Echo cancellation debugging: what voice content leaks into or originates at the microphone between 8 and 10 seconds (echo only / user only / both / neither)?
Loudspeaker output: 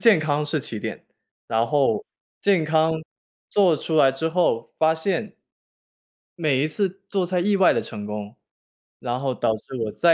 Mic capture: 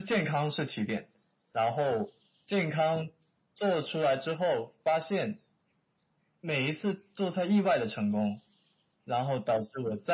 echo only